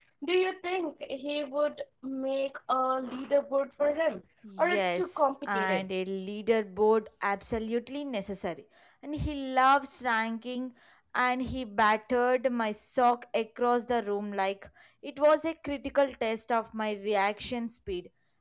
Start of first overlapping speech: 4 s

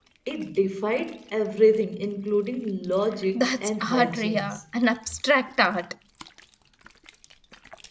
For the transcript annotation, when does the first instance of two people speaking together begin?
3 s

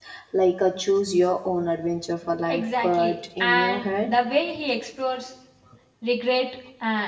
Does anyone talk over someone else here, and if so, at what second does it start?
2 s

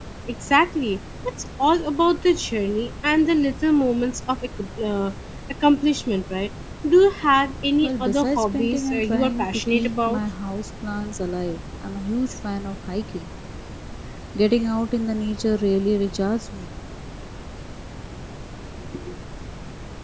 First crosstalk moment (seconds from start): 8 s

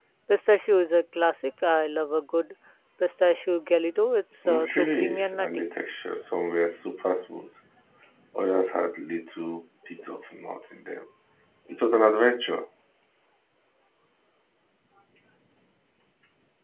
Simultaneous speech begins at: 4 s

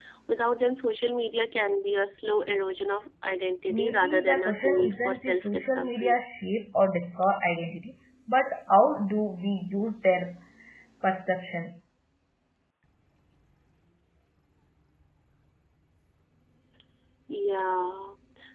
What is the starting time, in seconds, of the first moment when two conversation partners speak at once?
4 s

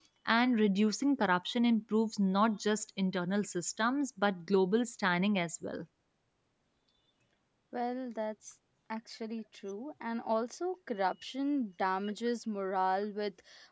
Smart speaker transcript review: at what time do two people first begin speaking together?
none

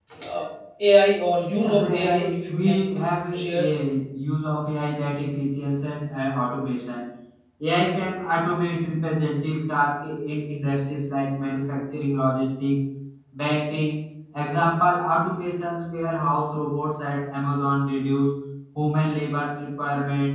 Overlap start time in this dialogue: 1 s

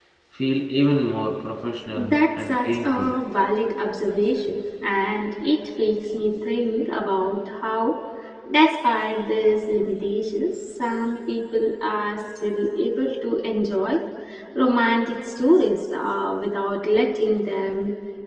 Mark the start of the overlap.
2 s

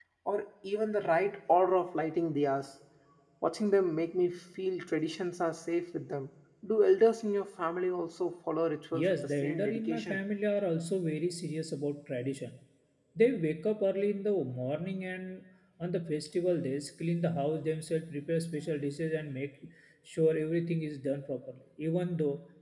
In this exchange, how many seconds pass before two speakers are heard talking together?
9 s

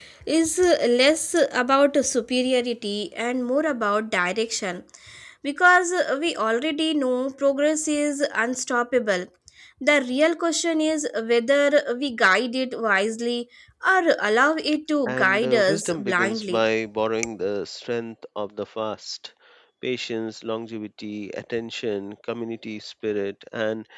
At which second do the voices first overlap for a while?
15 s

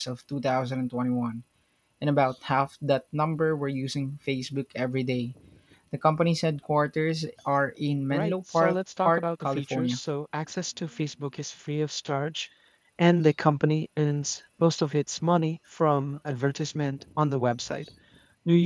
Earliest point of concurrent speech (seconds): 8 s

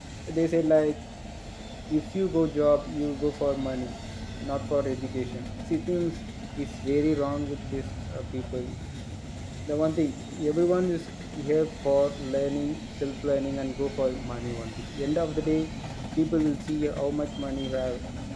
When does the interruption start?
none

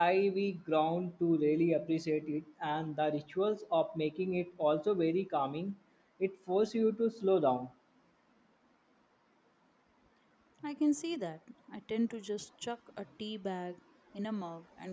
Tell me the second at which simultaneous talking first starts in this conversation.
none

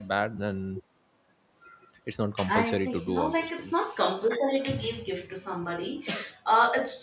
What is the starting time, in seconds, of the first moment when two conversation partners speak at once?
2 s

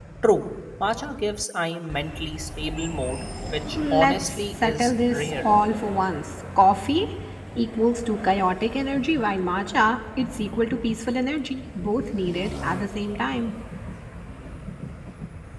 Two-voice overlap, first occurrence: 4 s

